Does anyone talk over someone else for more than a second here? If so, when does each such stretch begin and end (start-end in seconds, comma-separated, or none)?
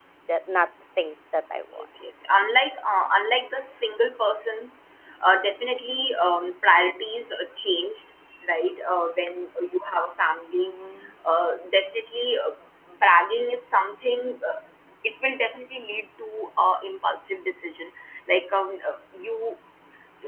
none